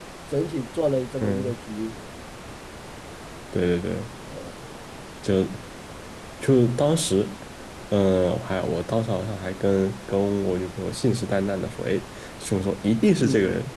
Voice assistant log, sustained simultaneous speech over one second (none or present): none